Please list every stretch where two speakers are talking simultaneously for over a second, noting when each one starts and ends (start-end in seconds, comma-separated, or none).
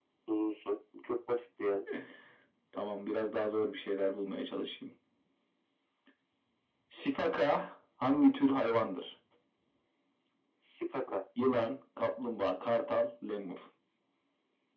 none